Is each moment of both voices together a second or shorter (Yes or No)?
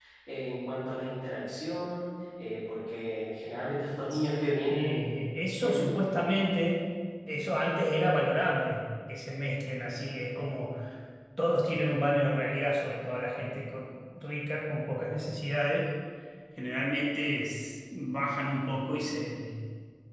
Yes